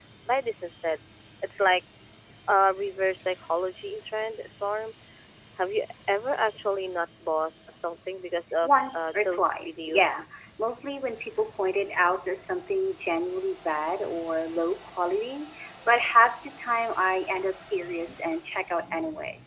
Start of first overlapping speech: 8.6 s

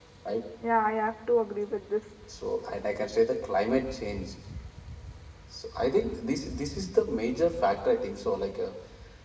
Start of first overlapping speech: none

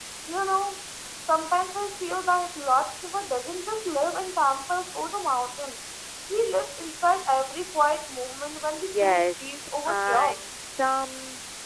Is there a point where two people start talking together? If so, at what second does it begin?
8.7 s

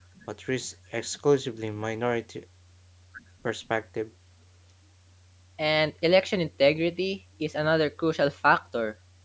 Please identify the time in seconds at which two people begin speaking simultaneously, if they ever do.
none

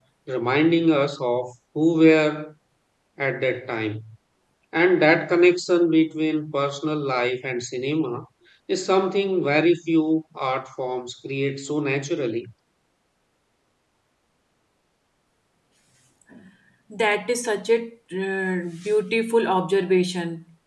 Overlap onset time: none

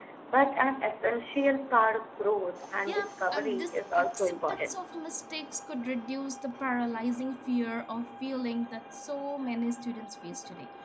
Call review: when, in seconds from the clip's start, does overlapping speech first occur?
2.9 s

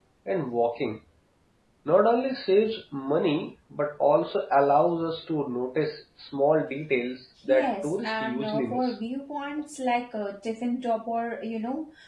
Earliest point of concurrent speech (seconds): 7.5 s

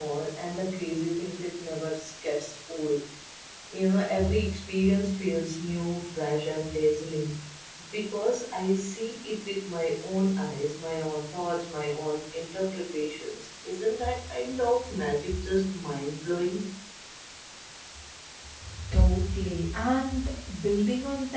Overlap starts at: none

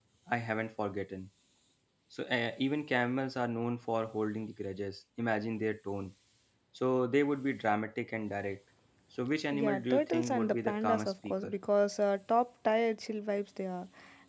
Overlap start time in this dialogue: 9.5 s

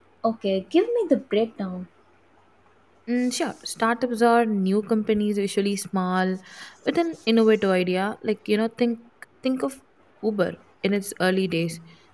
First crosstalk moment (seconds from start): none

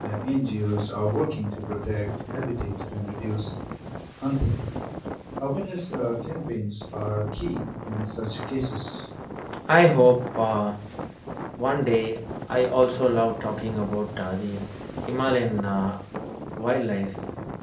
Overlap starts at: none

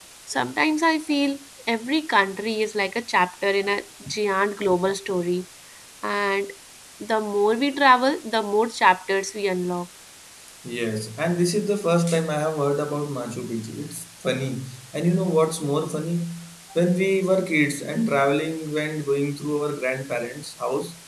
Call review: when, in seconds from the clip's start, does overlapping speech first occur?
none

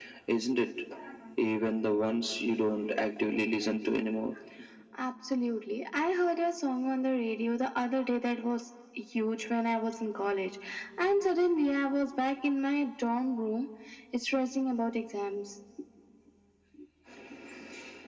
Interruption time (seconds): none

